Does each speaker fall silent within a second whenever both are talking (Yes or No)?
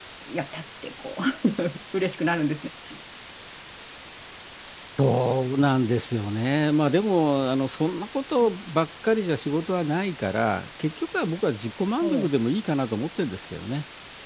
Yes